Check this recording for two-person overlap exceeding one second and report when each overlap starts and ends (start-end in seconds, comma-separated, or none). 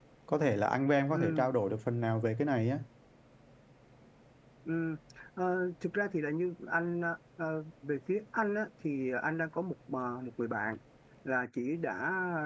none